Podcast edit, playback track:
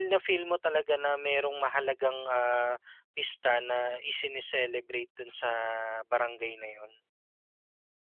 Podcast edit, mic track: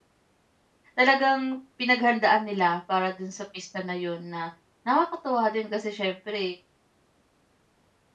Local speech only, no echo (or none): talagang pinaghandaan nila para dun sa pista na 'yun na nakakatuwa din kasi siyempre,